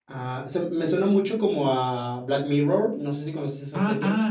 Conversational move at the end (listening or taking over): taking over